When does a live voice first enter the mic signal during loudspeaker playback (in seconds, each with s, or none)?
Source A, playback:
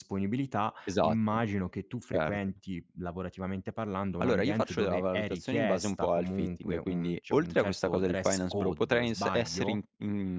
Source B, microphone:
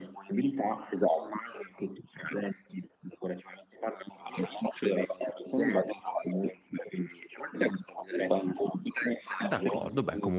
9.4 s